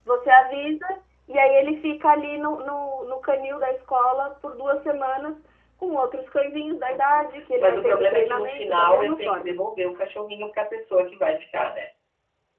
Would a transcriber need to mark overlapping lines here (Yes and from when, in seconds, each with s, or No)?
Yes, from 6.9 s